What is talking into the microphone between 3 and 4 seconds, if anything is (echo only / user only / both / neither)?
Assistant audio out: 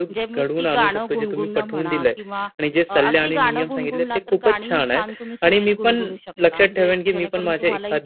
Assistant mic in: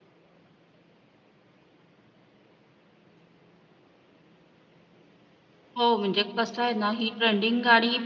neither